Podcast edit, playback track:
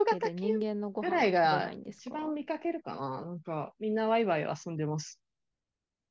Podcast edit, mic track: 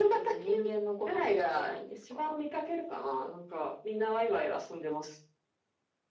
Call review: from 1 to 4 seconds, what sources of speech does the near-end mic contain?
echo only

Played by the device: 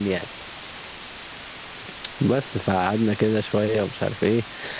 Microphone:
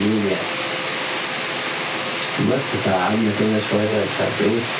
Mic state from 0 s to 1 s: echo only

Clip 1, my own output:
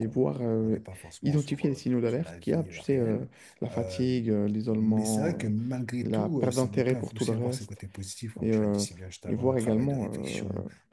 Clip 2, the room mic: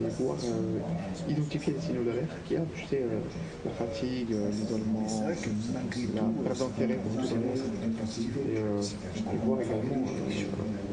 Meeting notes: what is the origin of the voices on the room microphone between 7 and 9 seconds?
both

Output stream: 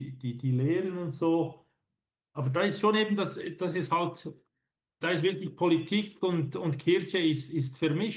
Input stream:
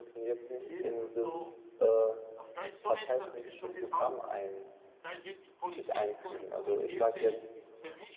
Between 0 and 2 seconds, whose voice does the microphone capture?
both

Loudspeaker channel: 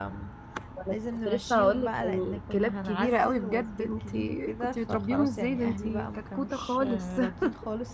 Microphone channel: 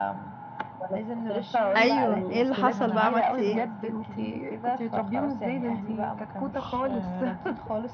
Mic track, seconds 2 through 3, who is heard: both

